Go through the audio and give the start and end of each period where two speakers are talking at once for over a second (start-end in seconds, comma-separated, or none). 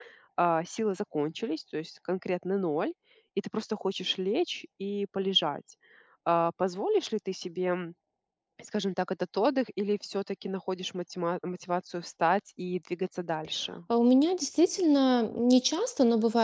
none